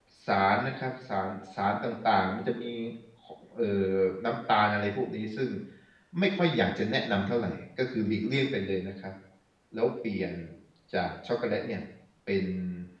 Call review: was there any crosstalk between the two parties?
No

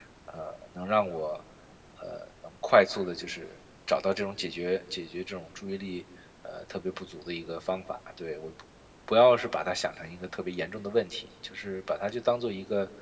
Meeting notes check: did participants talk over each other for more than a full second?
No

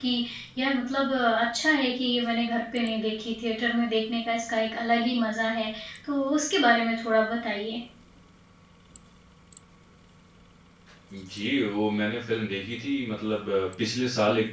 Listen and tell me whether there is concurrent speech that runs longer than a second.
No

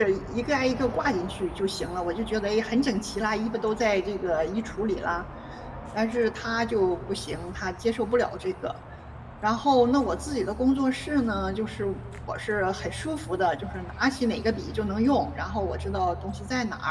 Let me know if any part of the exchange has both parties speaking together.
No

